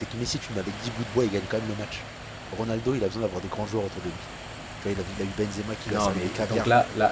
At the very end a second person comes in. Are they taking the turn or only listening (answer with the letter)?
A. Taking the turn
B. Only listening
A